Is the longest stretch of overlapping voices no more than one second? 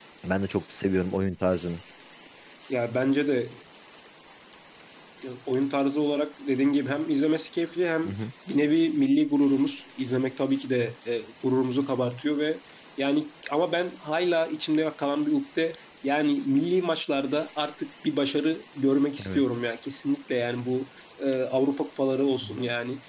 Yes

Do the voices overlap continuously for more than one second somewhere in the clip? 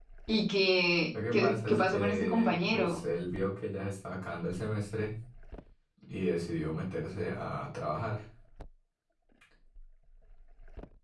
Yes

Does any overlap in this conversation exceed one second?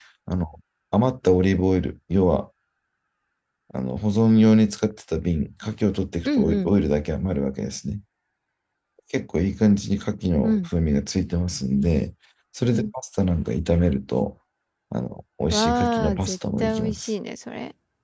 Yes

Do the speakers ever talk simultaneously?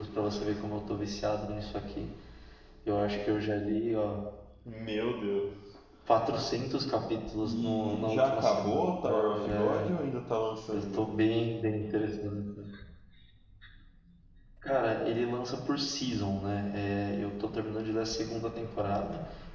Yes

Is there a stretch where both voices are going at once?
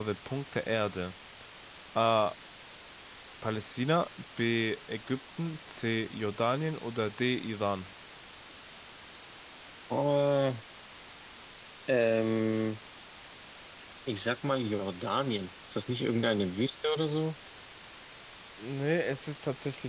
No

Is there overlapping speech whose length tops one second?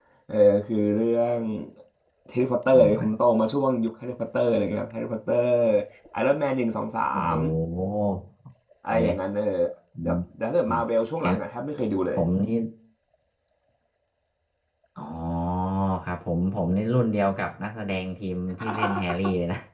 No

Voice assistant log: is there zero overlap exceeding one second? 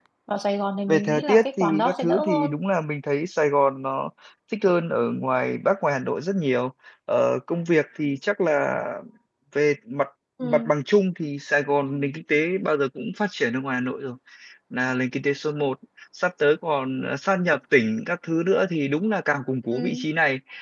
No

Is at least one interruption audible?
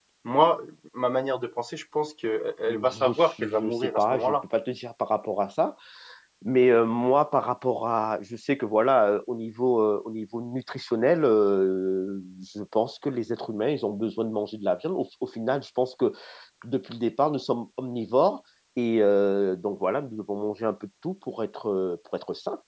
Yes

